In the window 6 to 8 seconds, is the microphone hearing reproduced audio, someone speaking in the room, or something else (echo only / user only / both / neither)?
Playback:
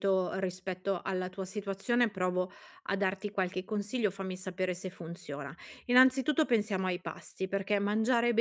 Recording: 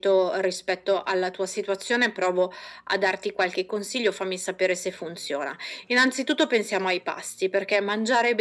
echo only